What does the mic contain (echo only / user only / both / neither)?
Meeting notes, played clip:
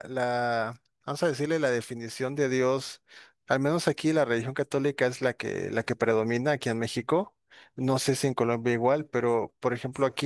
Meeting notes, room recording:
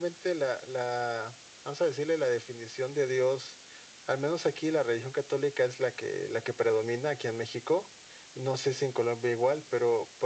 echo only